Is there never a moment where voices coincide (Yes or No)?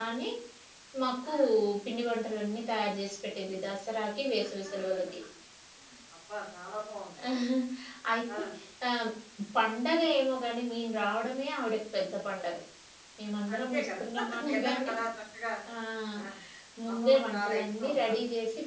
No